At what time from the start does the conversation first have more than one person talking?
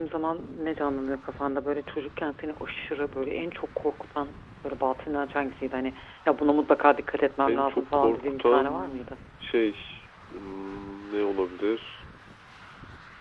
7.5 s

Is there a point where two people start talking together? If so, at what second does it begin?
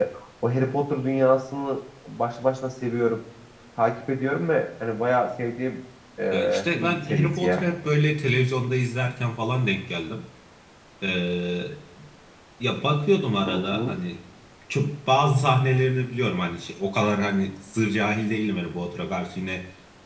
6.3 s

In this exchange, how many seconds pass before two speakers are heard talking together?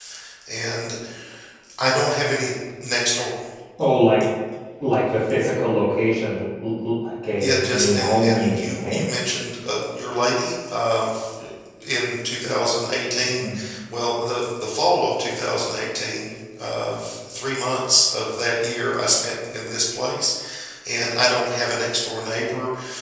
7.4 s

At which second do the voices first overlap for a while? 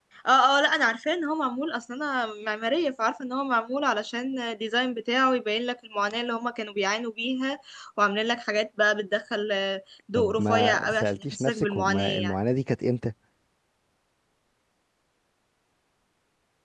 10.2 s

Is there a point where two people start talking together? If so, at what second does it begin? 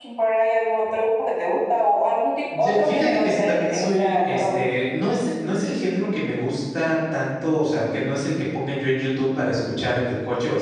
2.5 s

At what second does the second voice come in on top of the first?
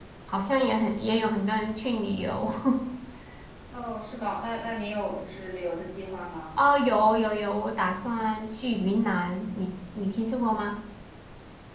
none

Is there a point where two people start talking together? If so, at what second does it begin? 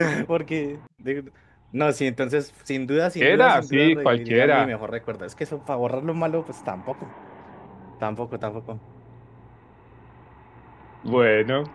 3.2 s

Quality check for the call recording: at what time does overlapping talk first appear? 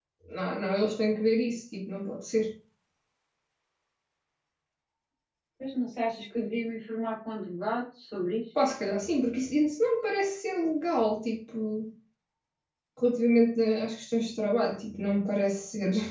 none

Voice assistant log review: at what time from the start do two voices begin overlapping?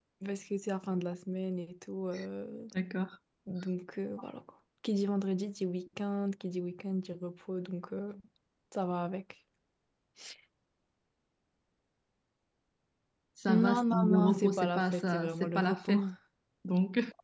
13.5 s

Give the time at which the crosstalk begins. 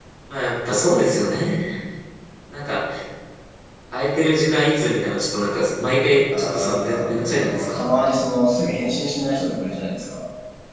6.3 s

